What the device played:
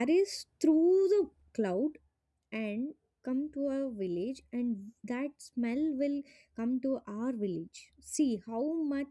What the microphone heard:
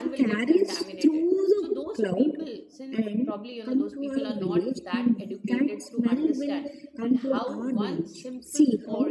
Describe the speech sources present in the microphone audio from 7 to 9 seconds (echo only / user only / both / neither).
both